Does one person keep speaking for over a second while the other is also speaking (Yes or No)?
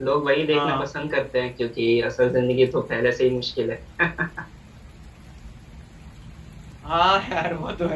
No